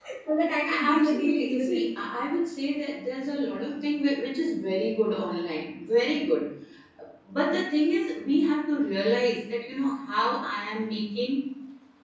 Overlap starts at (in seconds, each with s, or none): 0.7 s